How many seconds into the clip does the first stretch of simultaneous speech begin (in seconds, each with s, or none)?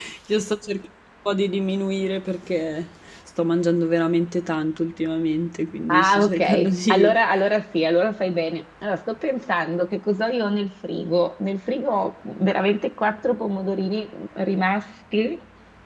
5.9 s